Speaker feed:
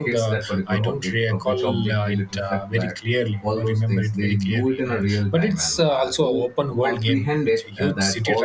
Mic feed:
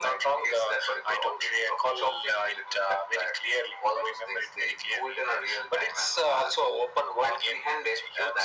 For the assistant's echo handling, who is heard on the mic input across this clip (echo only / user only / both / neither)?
echo only